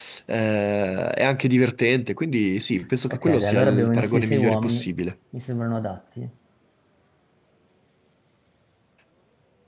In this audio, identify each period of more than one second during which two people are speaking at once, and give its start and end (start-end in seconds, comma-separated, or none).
3.1-4.9